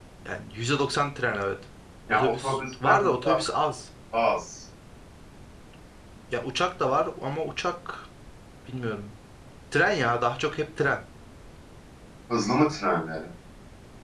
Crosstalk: present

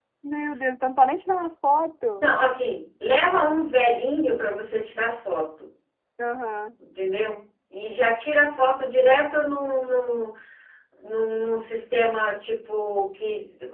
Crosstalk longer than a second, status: none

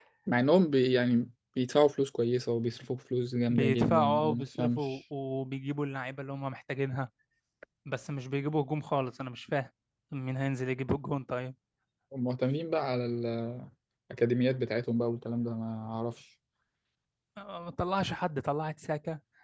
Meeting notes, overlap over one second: present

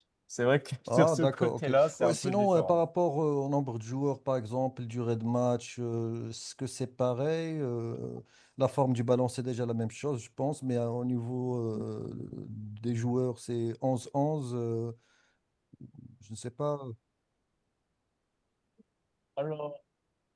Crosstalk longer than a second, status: present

